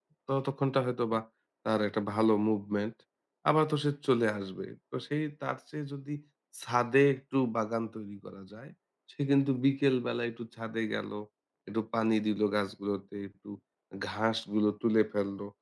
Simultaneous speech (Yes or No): No